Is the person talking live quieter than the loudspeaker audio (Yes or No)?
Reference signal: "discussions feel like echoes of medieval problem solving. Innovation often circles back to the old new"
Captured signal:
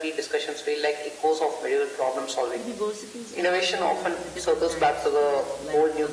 Yes